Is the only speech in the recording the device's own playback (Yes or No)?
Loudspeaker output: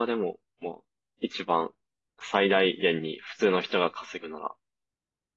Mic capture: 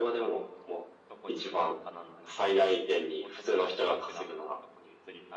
No